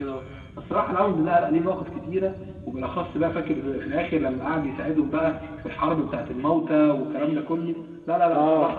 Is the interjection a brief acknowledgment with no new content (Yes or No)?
No